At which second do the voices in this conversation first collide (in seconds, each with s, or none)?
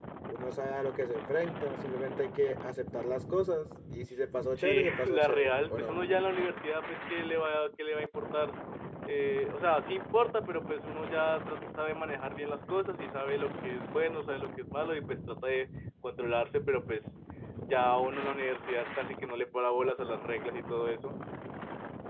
4.5 s